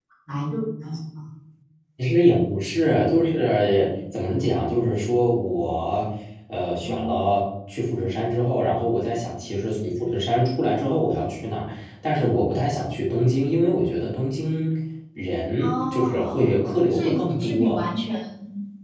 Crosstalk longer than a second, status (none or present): present